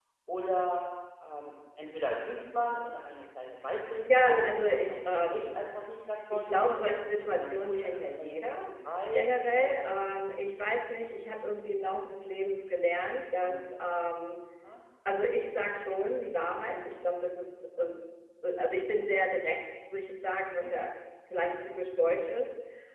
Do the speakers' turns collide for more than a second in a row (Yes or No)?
Yes